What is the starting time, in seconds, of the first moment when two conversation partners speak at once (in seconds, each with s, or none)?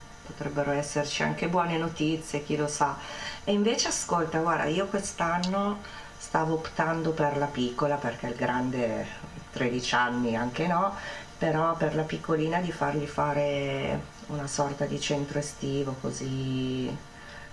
none